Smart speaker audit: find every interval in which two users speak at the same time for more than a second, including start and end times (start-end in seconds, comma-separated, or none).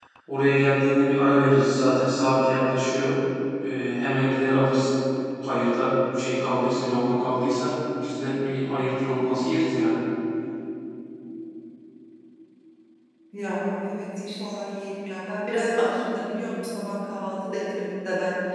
none